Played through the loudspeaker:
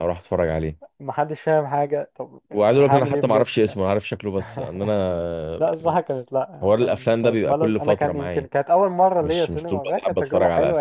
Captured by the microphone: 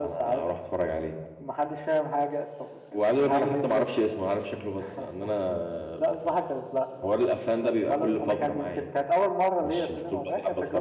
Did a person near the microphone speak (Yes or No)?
No